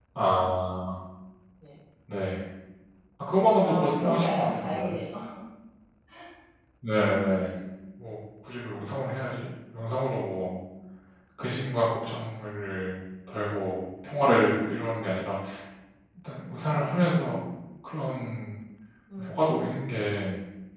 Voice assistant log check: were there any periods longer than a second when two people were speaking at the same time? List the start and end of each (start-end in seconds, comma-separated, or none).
3.6-5.0